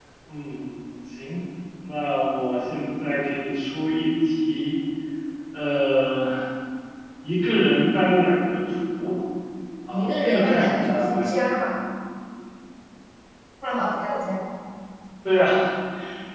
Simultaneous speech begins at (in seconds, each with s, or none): 9.9 s